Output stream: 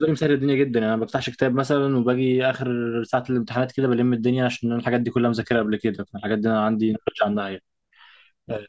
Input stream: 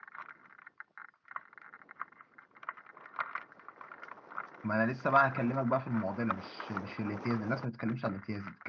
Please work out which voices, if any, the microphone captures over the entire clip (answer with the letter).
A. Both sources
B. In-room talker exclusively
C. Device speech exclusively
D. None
B